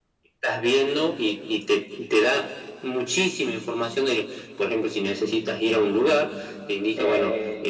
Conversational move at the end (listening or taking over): listening